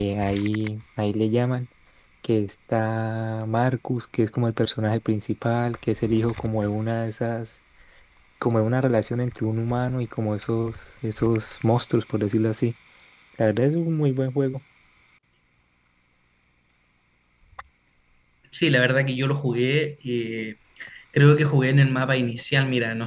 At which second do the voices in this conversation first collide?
none

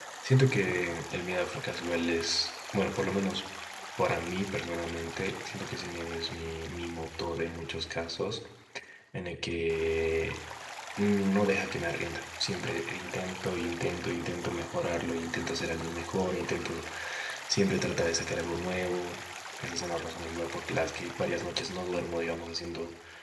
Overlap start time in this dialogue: none

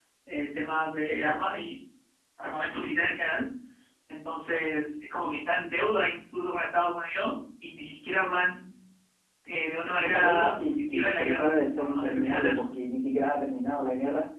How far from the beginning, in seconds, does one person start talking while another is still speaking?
10 s

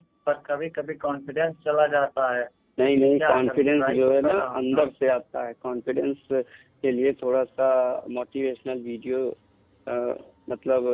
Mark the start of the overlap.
3 s

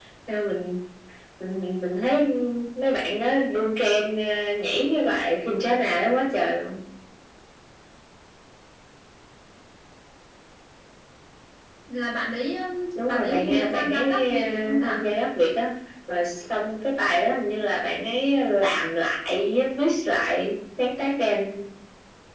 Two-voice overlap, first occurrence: 13 s

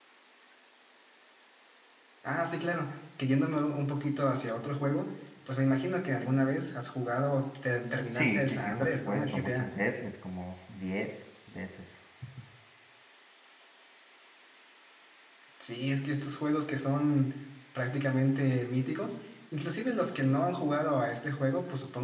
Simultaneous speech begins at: 8 s

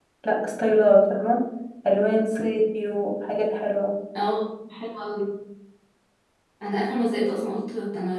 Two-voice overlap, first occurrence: none

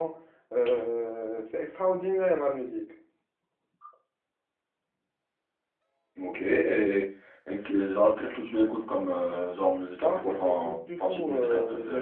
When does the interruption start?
10 s

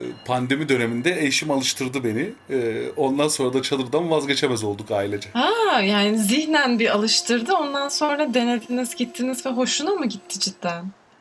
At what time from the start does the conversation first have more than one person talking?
none

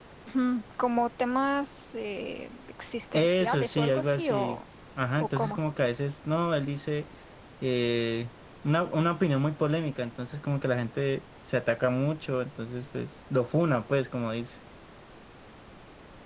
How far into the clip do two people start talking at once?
3 s

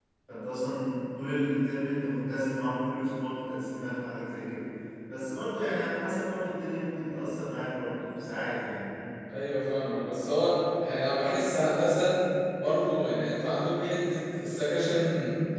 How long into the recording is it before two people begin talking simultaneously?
none

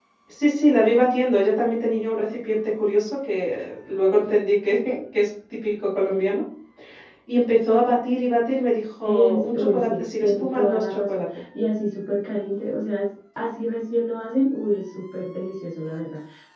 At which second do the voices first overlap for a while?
9 s

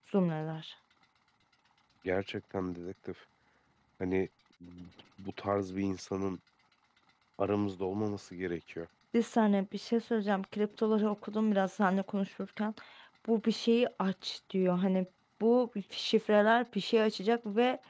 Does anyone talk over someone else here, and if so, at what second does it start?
none

